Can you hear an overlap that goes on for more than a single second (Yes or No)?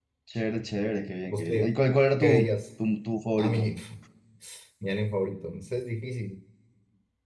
No